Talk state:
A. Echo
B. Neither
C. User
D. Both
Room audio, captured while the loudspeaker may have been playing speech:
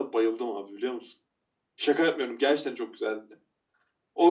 A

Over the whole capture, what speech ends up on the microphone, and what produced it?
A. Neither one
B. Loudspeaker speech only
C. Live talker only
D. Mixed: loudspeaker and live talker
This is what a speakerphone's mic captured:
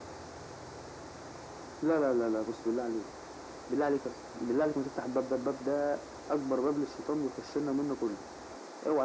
B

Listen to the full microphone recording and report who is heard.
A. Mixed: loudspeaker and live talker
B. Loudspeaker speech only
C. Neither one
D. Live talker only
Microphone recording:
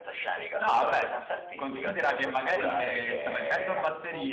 A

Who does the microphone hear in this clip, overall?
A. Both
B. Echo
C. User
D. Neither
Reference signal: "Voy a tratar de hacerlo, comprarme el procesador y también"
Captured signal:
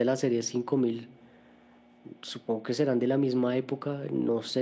C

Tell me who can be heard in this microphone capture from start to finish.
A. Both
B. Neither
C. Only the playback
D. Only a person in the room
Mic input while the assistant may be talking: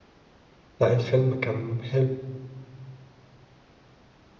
D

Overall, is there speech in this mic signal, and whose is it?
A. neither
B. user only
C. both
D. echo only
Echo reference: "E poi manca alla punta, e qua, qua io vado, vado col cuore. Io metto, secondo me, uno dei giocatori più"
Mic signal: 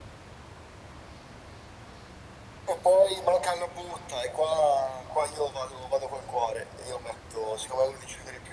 D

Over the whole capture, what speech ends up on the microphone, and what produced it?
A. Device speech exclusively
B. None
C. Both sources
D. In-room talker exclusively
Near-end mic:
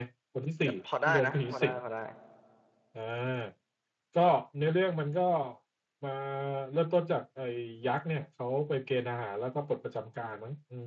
C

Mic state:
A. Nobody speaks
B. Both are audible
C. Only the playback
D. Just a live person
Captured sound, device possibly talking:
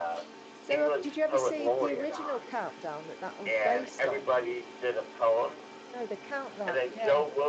B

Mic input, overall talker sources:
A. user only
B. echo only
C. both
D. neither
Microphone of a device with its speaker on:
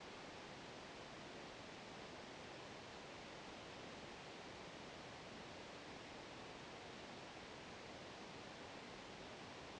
D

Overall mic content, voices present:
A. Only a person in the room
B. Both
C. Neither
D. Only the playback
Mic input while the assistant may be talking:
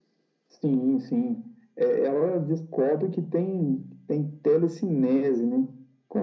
D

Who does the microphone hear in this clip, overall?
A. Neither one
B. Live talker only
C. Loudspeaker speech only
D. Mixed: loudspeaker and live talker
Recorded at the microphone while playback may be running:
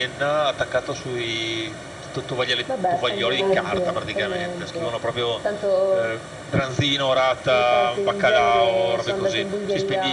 D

